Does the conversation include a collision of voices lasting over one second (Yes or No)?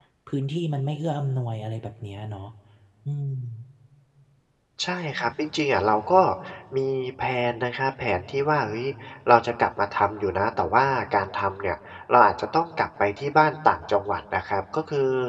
No